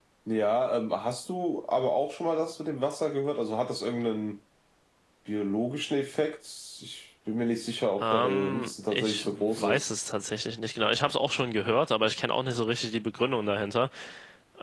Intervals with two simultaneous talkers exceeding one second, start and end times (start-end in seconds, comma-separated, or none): 8.0-9.9